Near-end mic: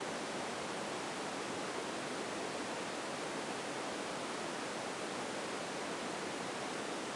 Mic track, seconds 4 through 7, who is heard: neither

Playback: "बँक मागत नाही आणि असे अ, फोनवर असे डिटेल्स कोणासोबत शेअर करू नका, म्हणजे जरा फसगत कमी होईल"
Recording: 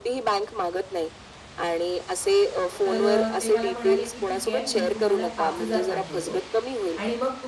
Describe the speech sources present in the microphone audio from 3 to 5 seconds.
both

